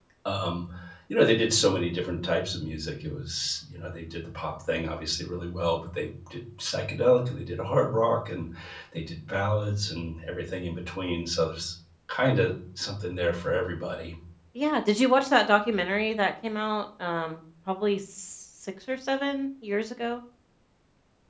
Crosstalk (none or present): none